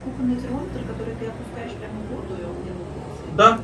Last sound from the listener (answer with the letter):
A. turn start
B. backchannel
A